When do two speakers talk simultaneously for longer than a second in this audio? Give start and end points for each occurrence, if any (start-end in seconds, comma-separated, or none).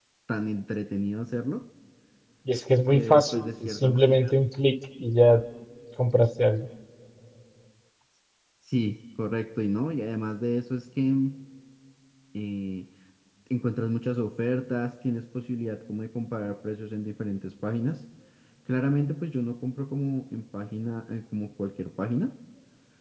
2.9-4.2